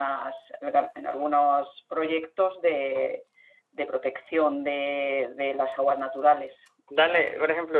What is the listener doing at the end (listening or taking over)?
taking over